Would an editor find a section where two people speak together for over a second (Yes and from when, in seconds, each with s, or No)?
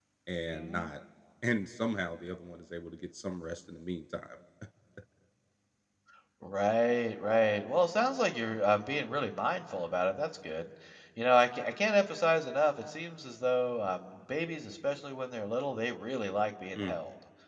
No